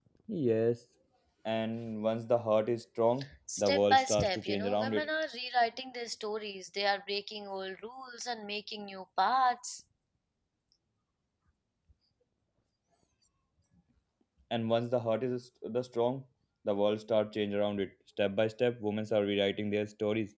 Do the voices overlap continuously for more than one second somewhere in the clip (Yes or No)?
Yes